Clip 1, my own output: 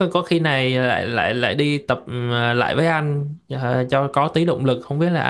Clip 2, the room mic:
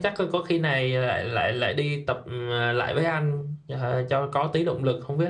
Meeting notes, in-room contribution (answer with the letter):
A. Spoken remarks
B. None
B